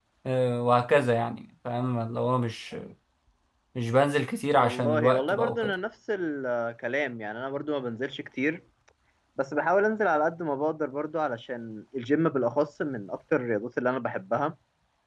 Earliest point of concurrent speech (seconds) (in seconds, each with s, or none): 4.5 s